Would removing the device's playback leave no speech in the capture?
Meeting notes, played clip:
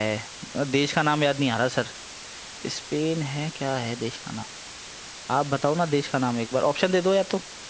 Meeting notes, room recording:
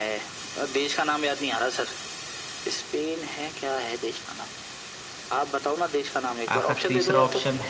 No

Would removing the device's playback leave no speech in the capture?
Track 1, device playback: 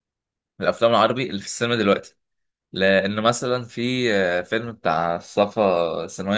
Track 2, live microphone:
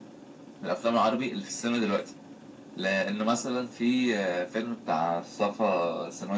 Yes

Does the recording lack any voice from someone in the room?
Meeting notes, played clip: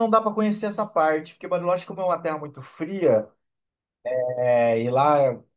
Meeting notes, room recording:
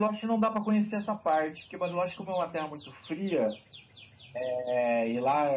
Yes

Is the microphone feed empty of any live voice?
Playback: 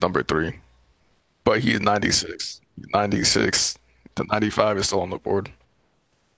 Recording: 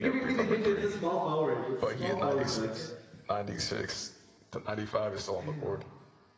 No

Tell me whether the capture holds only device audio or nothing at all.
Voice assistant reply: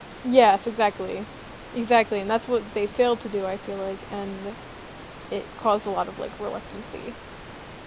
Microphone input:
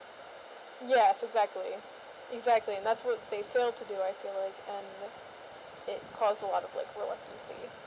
Yes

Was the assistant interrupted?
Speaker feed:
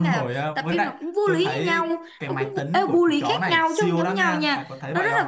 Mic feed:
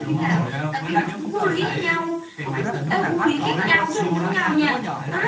Yes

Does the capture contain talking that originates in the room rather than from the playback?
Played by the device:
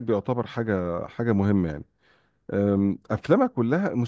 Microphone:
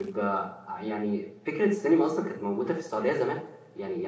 Yes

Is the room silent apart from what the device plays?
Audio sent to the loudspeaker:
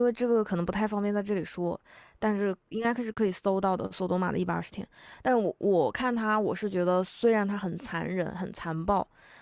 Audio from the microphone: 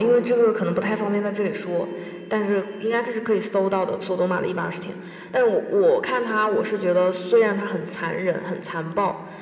Yes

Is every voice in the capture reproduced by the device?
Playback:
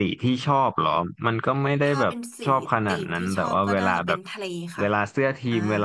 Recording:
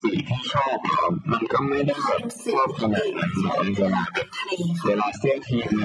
Yes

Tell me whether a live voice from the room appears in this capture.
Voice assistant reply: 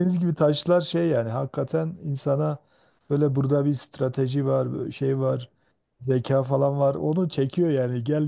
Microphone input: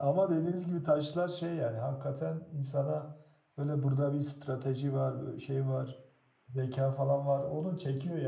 No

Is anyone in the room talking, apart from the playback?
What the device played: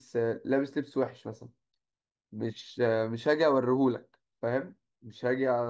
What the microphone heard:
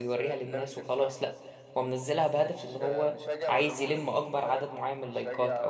Yes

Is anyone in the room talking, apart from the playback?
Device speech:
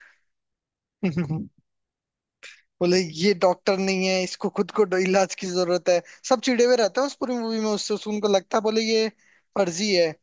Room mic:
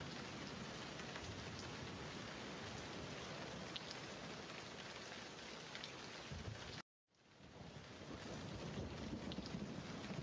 No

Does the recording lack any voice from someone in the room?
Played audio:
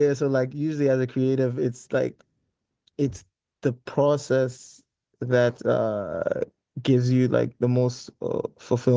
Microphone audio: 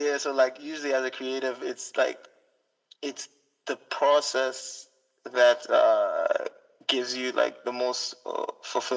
Yes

